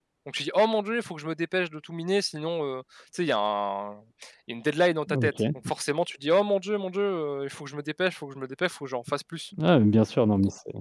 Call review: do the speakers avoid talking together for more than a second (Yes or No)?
Yes